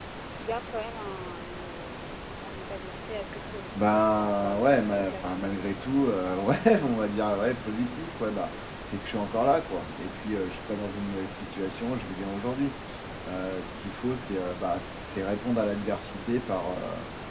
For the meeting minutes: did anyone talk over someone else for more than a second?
Yes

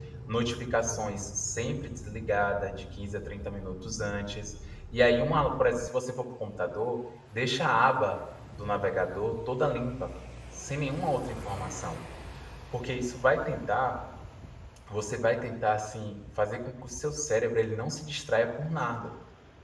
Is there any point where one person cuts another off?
No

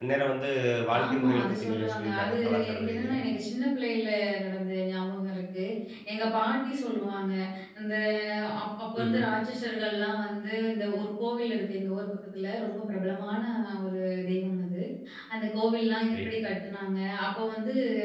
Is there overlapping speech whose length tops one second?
Yes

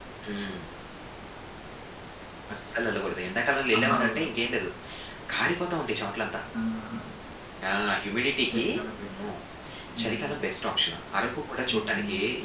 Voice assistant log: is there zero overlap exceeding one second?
Yes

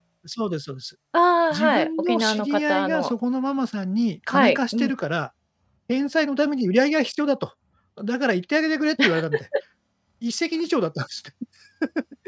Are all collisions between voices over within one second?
No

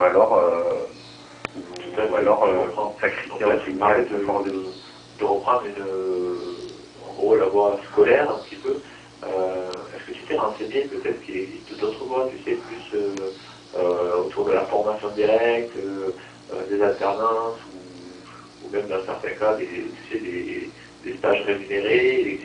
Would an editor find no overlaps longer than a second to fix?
No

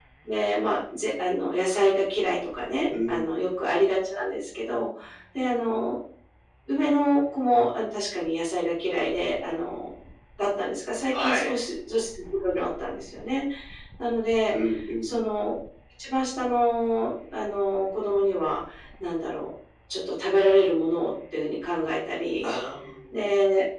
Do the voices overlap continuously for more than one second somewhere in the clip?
No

